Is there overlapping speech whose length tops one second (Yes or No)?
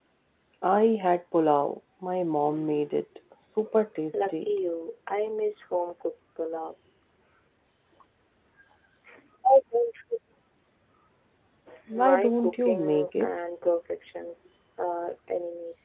Yes